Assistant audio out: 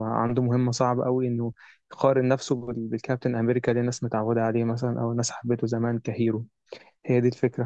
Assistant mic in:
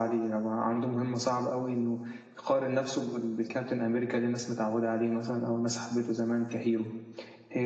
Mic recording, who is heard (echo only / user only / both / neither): echo only